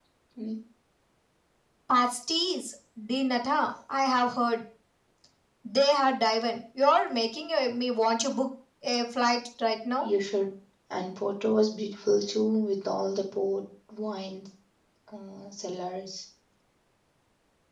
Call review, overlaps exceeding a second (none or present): none